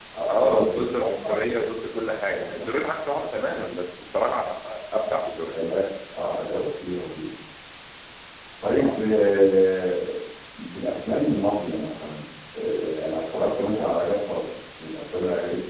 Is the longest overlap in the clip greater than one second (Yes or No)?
Yes